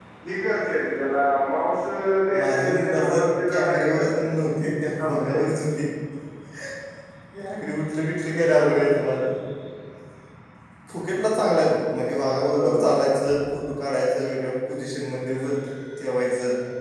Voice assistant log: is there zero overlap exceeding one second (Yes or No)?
No